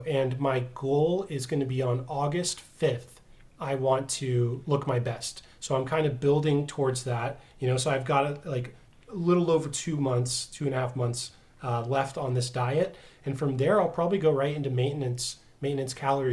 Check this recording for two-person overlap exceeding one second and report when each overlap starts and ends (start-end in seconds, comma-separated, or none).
none